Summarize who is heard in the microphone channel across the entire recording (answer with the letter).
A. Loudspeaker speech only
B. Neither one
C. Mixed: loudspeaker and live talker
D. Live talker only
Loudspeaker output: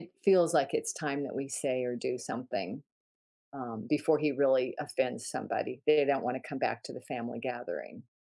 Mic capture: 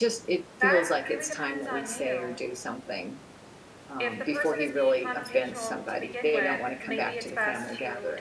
C